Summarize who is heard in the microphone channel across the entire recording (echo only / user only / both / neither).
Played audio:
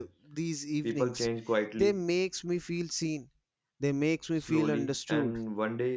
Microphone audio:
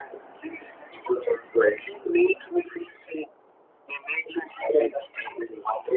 echo only